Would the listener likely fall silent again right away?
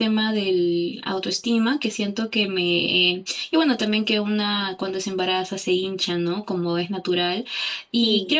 Yes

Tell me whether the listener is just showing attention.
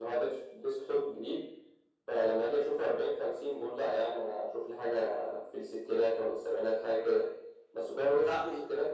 Yes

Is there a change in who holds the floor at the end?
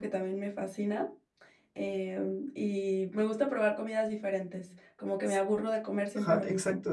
Yes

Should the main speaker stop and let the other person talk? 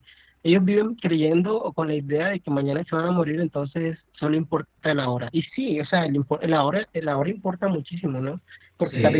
No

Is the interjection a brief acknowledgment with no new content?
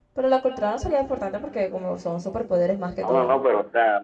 No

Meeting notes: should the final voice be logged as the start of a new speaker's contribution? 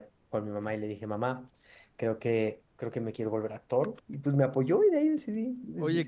Yes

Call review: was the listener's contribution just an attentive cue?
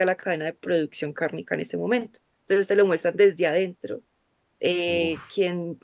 Yes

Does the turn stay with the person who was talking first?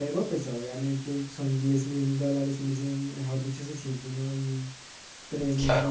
Yes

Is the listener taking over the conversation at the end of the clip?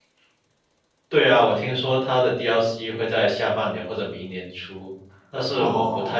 No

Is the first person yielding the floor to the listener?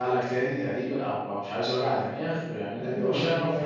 Yes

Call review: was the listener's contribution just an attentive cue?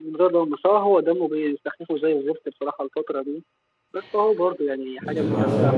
No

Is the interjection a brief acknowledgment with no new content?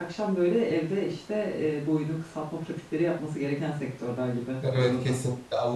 No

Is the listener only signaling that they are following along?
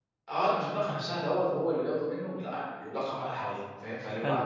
Yes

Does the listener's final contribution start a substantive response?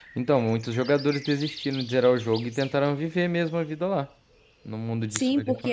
Yes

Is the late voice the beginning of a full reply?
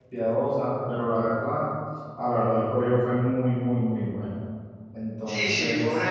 Yes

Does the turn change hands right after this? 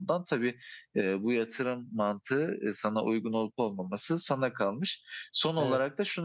No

